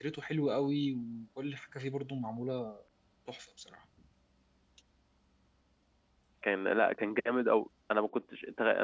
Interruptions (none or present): none